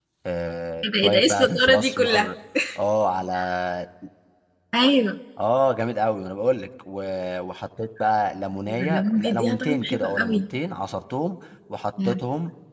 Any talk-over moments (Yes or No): Yes